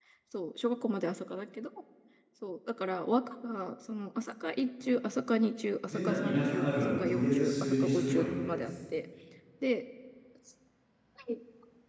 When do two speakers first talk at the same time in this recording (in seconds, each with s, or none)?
5.9 s